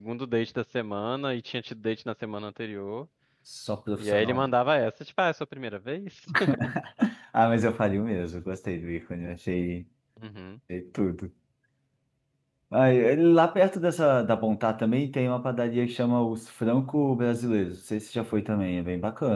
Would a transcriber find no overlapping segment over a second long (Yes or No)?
Yes